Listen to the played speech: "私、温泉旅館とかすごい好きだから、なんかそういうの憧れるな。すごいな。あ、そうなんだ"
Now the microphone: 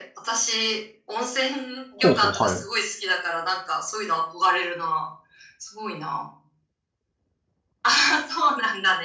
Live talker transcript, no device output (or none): ほうほう、はい。